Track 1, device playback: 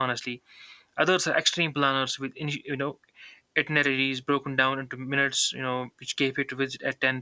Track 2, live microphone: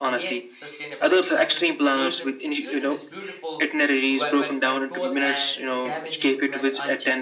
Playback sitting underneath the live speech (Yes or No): No